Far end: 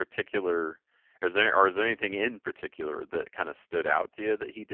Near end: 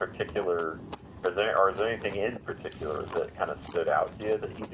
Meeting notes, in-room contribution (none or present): none